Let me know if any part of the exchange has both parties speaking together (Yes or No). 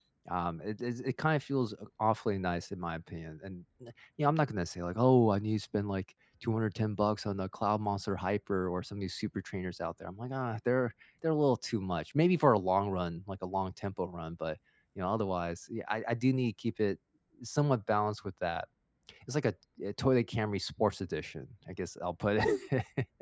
No